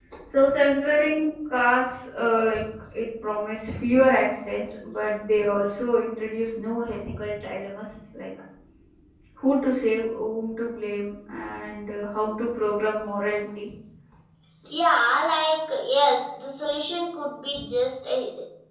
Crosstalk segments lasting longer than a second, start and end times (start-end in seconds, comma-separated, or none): none